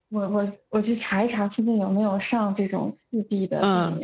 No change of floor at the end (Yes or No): No